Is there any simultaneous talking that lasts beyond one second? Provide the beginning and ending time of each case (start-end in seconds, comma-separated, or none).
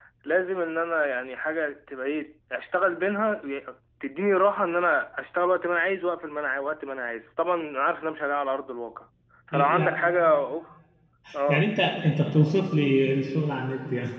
none